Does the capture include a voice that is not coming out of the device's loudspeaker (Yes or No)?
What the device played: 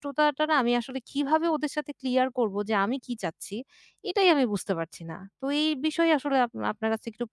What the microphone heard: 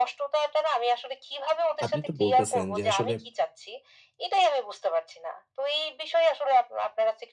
Yes